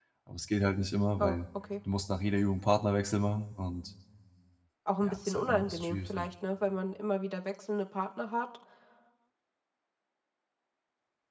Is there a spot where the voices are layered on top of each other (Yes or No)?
Yes